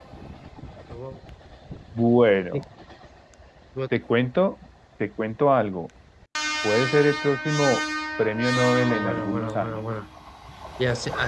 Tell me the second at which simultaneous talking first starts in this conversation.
9 s

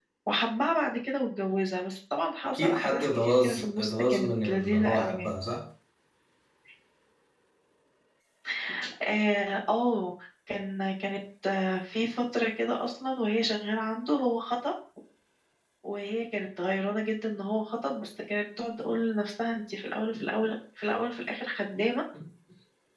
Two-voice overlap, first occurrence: 3 s

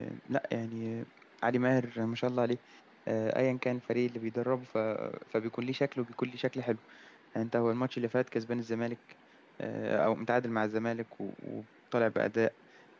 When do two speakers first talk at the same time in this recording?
none

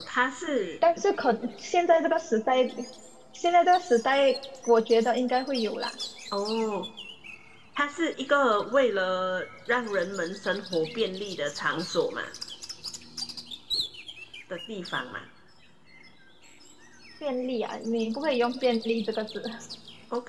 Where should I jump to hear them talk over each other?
none

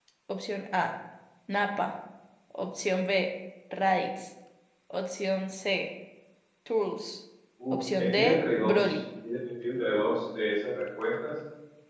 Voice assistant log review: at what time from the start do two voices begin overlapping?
8 s

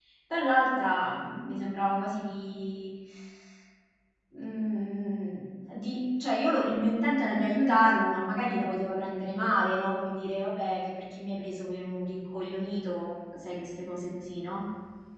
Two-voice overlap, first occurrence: none

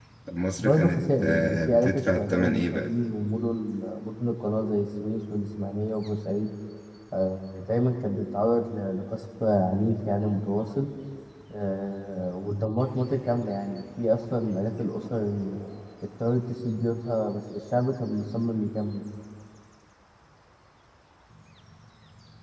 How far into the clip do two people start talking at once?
1 s

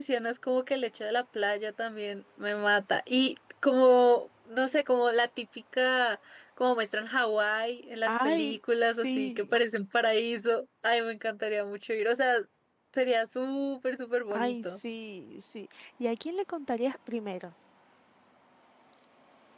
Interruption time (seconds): 8 s

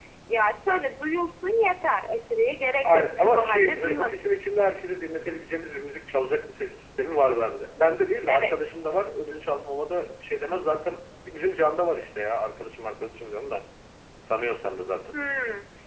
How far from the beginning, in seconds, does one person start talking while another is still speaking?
3 s

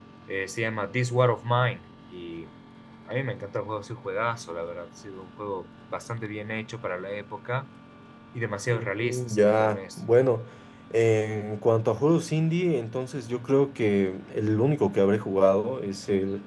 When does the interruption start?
9 s

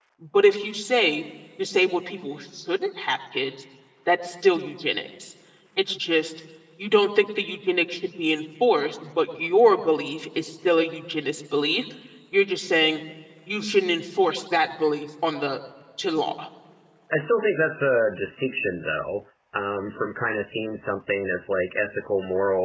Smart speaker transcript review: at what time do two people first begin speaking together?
none

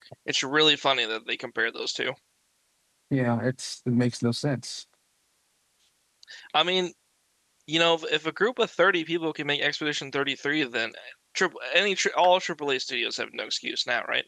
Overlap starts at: none

